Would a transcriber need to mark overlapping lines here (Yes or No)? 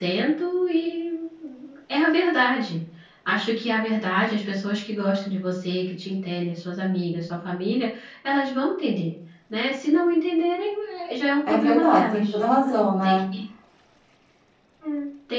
Yes